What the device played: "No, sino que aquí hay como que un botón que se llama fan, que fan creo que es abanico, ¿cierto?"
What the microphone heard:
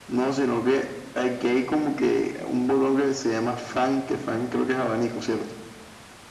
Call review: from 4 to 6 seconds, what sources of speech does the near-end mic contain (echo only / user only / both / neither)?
echo only